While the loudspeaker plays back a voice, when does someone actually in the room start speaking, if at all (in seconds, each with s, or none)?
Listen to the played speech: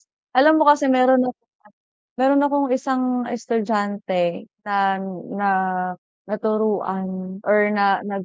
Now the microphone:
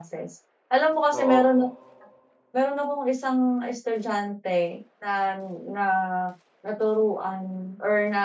1.1 s